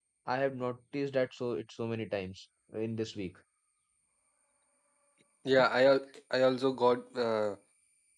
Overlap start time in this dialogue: none

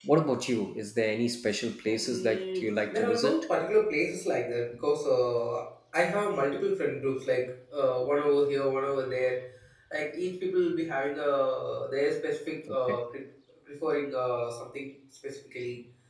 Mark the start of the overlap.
2 s

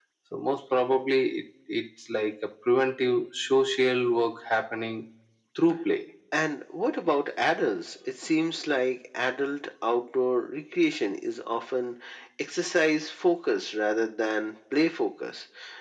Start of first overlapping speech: none

